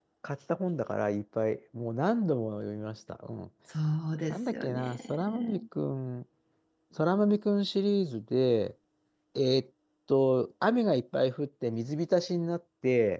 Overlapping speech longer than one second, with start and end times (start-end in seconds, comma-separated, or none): 4.3-5.6